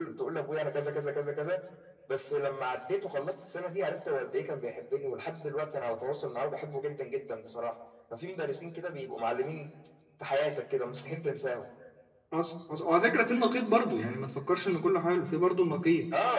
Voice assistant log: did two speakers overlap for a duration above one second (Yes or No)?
No